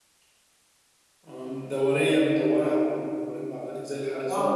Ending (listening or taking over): taking over